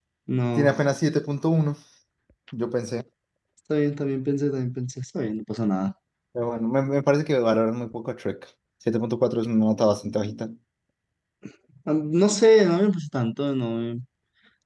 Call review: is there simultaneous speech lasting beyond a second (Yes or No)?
No